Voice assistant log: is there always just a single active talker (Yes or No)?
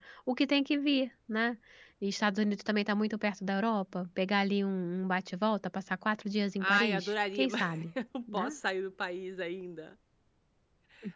No